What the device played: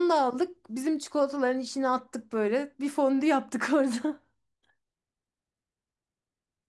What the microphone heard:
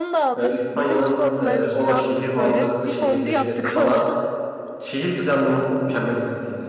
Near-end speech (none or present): present